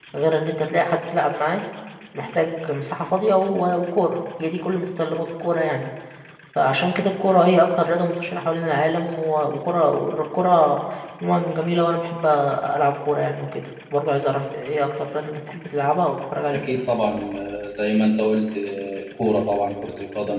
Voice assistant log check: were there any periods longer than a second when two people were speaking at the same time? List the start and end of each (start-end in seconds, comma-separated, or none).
none